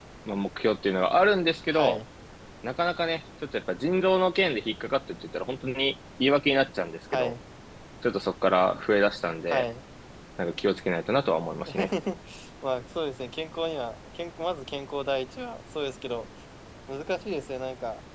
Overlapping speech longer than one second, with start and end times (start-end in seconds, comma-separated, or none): none